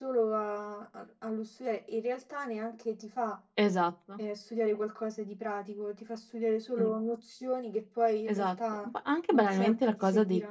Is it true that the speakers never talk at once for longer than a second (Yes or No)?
No